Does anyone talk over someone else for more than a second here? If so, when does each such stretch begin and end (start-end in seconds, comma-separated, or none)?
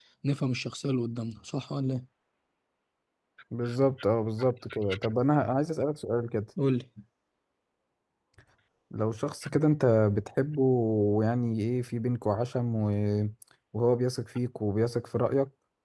none